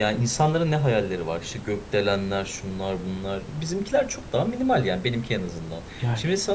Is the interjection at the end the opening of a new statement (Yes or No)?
No